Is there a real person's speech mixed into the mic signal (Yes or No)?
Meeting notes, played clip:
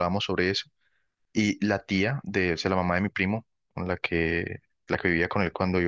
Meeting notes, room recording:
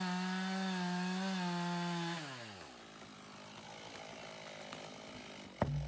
No